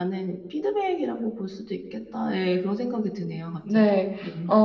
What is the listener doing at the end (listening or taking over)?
taking over